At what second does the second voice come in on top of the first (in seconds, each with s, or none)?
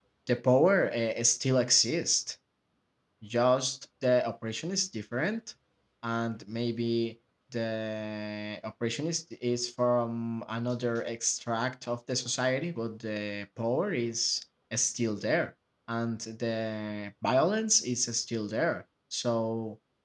none